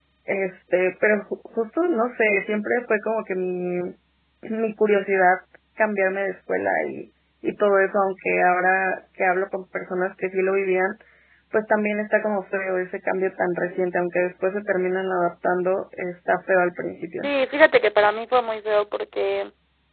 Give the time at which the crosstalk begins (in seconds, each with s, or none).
none